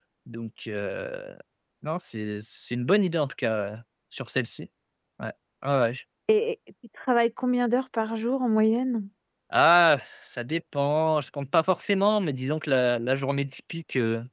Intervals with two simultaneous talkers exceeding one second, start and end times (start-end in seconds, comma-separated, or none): none